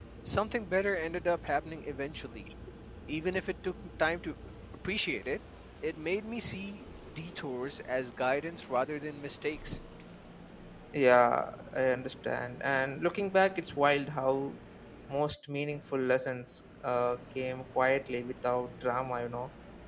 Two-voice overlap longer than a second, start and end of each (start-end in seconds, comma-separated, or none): none